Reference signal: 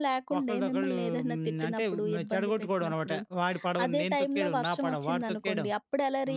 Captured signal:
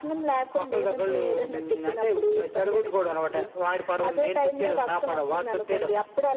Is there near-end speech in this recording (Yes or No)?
No